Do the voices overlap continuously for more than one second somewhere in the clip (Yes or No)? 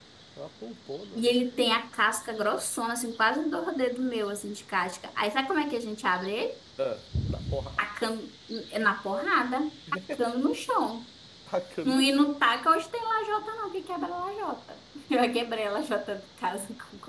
No